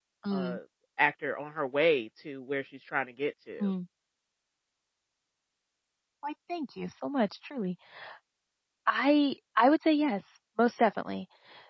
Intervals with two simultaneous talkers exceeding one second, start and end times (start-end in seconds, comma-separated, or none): none